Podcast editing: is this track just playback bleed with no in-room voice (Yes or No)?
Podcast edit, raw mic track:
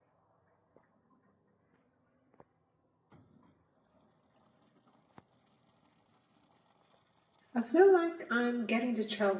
No